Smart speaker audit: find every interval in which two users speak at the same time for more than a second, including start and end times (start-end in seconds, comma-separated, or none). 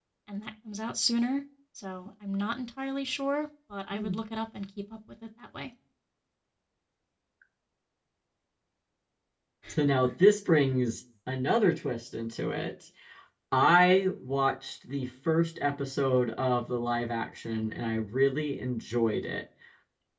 none